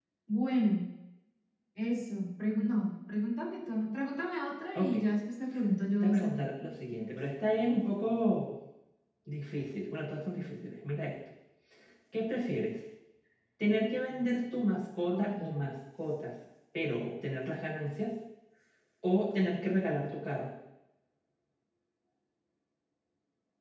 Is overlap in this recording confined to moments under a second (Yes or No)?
Yes